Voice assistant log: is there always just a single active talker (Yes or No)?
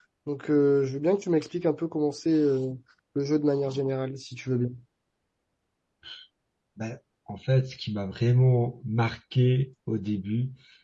Yes